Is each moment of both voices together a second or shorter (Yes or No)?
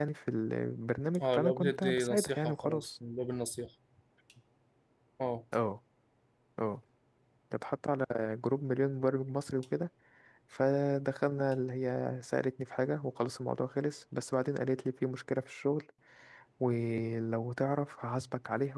No